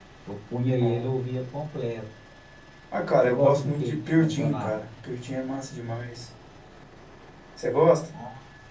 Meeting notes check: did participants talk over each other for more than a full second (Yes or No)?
Yes